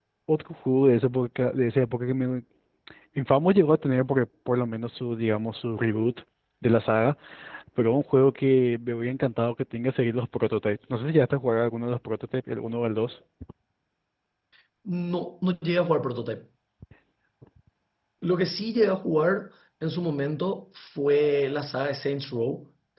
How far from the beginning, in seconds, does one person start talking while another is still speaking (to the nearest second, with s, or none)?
none